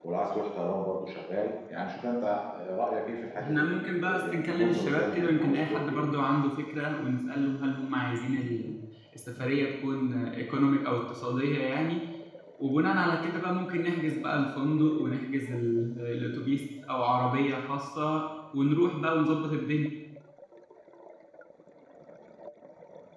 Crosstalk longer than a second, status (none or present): present